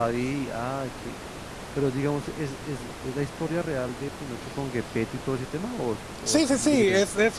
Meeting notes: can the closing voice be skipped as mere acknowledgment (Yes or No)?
No